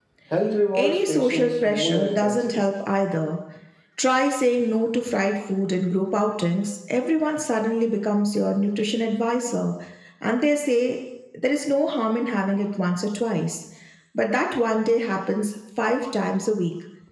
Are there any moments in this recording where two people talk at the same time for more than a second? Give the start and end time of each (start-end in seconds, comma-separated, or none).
0.7-2.7